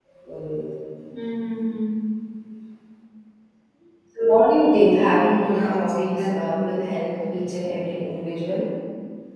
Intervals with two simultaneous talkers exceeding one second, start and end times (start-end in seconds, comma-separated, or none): 5.4-6.6